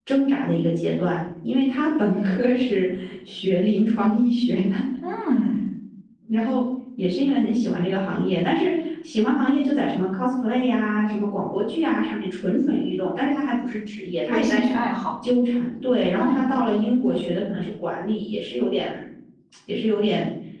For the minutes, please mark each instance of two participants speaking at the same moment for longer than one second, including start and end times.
none

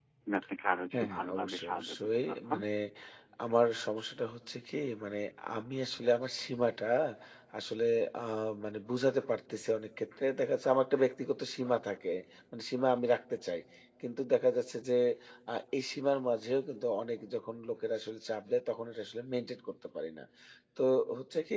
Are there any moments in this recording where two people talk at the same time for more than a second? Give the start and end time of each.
1.0-2.6

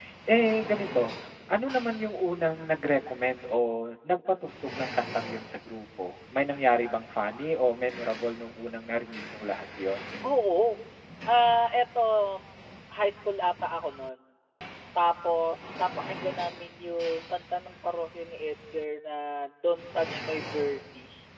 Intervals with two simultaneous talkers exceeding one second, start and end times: none

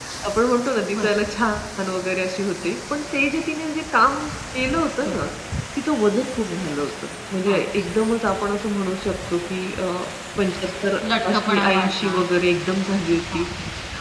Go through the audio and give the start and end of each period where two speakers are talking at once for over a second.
11.3-12.5

